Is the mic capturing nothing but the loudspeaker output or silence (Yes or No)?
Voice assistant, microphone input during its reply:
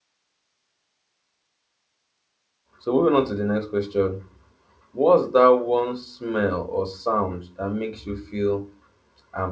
No